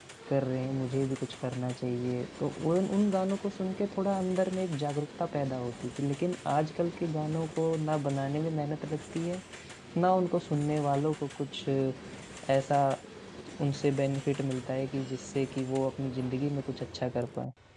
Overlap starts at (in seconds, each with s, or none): none